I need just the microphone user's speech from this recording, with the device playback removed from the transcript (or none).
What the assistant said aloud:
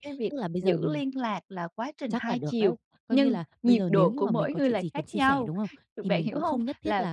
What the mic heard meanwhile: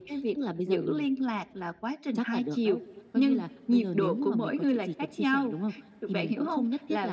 none